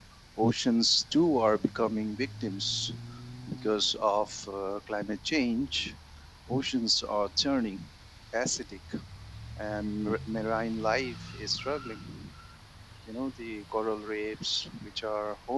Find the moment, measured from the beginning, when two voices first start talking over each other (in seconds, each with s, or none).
none